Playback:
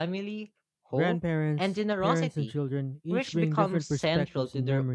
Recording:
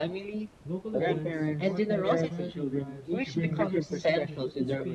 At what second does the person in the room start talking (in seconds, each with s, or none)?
0.6 s